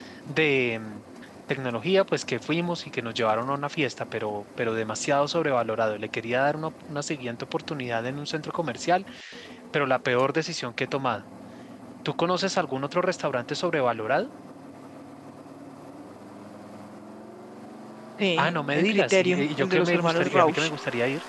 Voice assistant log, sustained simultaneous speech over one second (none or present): present